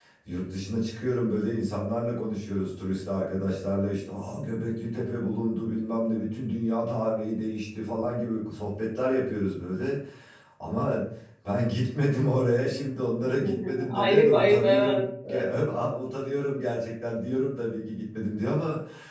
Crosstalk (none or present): present